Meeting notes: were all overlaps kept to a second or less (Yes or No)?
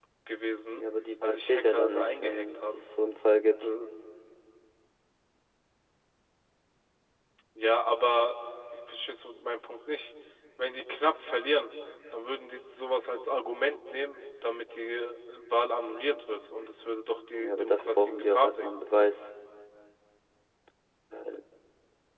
No